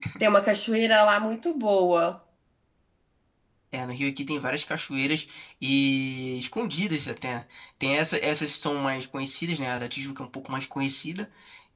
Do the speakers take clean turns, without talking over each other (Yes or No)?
Yes